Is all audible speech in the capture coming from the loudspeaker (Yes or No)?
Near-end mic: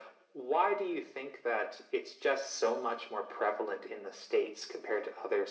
Yes